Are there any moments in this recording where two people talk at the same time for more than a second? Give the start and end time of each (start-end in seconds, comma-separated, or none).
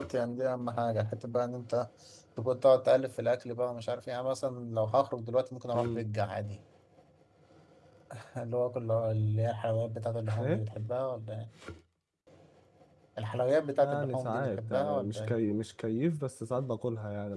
13.8-15.4